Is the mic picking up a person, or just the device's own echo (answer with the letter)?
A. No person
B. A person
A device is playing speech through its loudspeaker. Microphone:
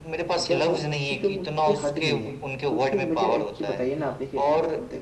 B